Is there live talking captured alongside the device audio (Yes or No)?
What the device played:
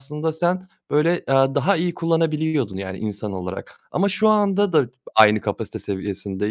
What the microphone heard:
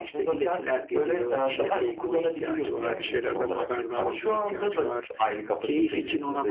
Yes